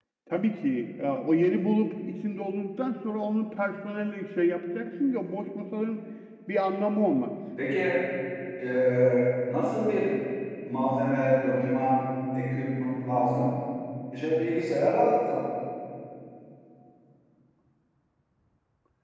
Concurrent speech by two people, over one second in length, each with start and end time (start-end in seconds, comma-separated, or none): none